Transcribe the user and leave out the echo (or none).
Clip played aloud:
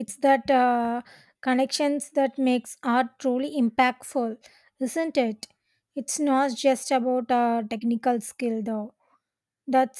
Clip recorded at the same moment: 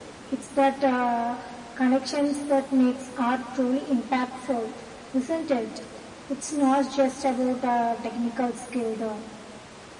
none